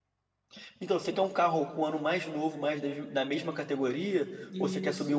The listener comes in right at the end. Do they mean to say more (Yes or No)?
Yes